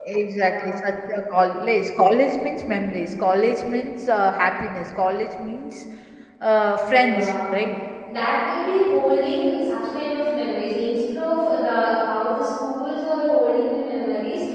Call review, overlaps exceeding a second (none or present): none